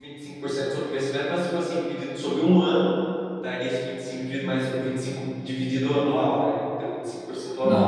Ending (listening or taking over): taking over